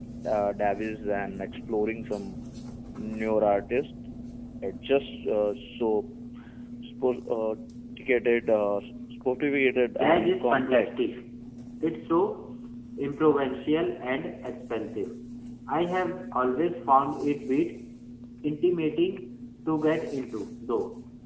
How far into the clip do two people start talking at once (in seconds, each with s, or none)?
9.8 s